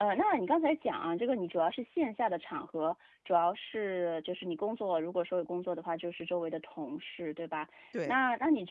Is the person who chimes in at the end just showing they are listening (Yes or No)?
Yes